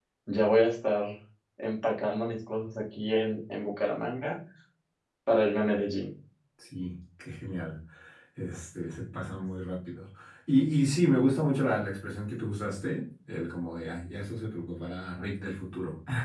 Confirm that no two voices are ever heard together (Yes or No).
Yes